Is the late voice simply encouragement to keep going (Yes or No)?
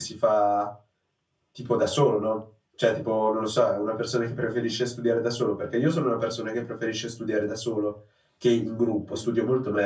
Yes